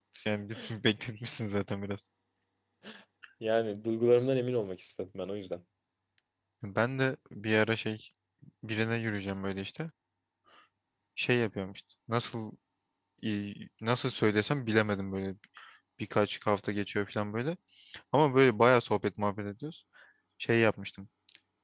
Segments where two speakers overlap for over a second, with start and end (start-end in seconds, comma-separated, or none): none